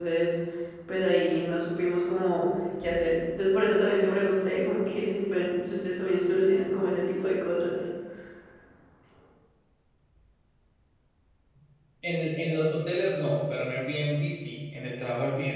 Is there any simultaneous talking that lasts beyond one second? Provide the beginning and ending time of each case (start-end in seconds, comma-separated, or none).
none